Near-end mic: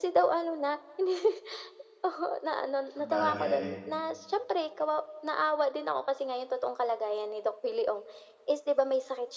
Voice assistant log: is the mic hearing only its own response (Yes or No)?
No